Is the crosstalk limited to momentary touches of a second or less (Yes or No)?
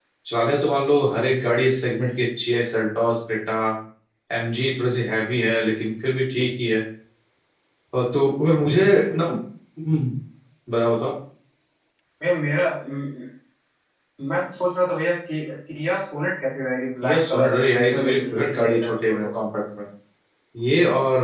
No